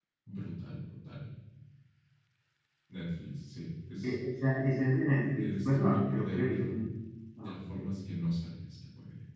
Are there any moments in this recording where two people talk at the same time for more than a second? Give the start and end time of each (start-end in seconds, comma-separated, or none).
5.4-6.8